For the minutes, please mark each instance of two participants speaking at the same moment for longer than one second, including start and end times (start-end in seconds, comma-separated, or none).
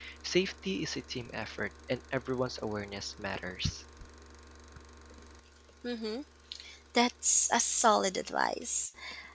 none